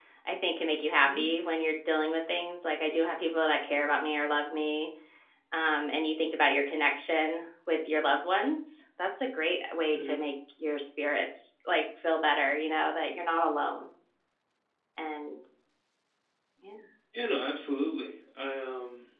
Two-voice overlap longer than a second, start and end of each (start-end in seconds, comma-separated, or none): none